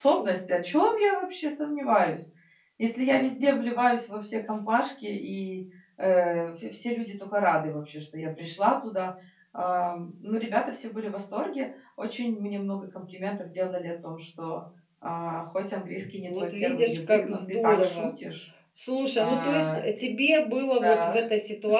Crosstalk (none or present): present